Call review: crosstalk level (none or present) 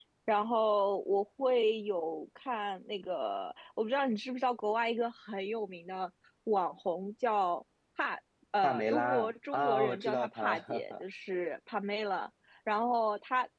present